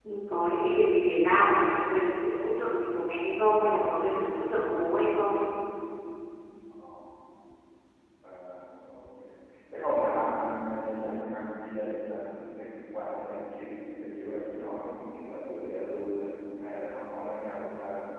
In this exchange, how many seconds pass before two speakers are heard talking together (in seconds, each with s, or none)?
none